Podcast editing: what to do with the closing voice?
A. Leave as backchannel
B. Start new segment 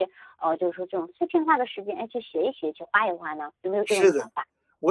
B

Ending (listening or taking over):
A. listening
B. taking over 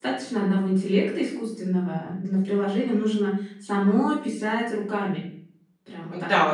B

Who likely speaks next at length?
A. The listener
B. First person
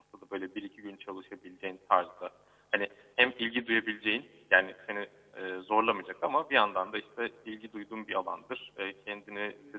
B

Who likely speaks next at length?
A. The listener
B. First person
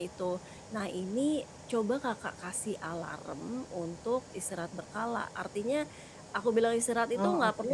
B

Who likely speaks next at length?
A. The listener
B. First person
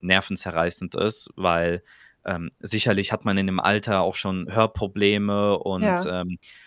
B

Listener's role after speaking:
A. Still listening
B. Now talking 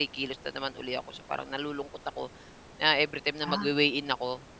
A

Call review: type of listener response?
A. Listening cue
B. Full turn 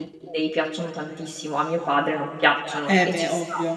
B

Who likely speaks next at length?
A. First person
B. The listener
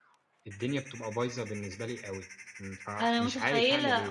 B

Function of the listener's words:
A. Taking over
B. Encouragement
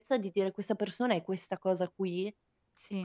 A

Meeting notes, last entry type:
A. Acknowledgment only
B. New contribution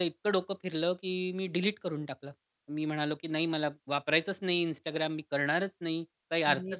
A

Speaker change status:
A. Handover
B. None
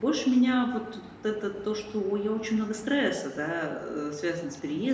B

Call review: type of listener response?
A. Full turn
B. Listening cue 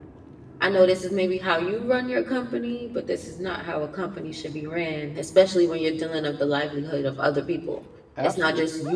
B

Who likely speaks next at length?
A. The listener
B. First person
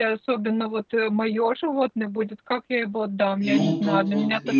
A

